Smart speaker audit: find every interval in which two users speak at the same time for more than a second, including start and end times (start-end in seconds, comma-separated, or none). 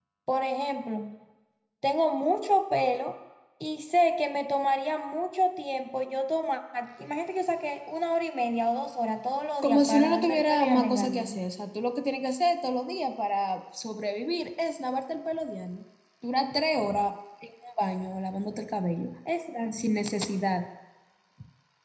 9.6-11.3